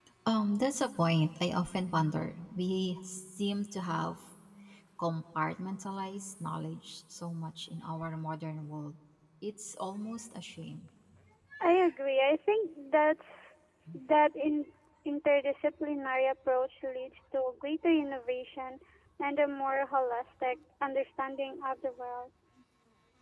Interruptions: none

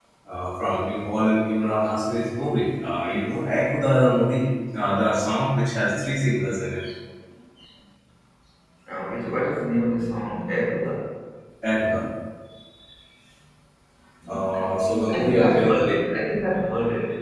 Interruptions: present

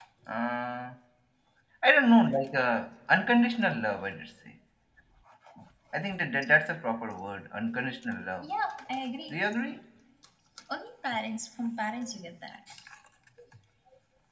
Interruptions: none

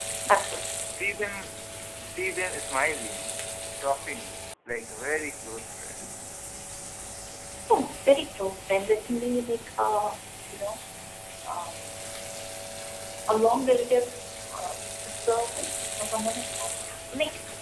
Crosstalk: none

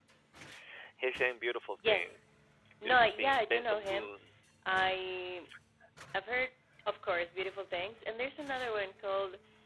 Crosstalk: present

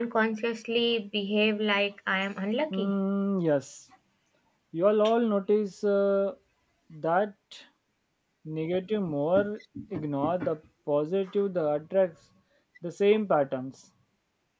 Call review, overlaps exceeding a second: none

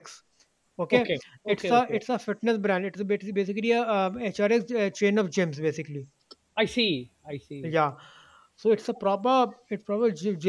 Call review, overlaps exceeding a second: none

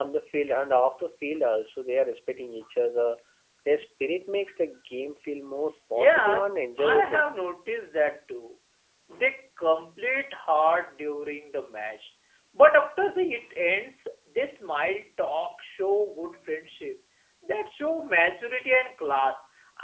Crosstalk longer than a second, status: present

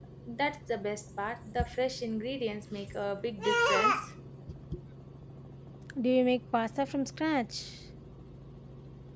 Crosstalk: none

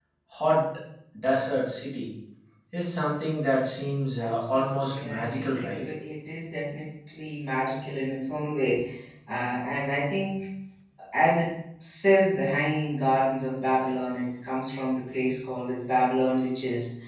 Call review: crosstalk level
present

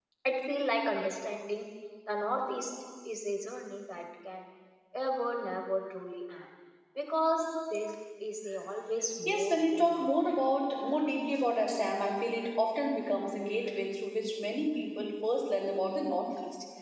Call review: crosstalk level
present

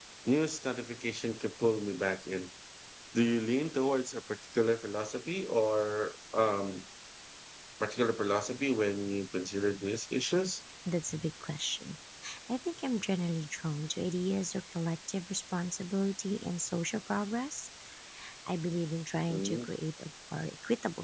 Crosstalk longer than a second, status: none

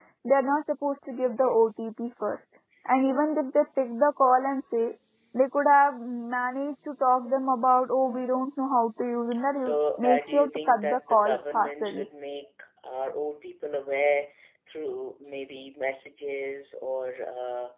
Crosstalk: present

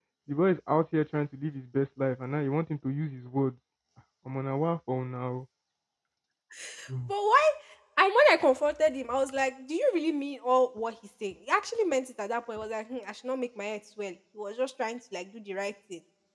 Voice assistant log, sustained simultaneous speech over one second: none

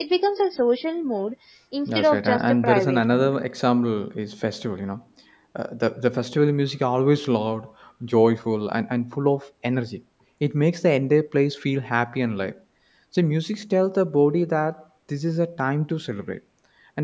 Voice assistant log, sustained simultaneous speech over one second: present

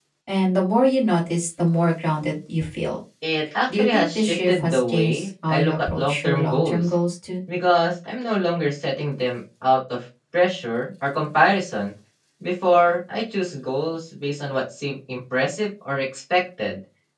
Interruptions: present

